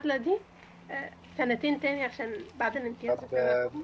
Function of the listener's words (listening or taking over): taking over